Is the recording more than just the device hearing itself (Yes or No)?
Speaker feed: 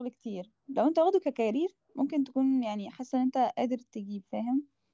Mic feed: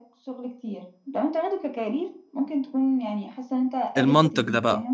Yes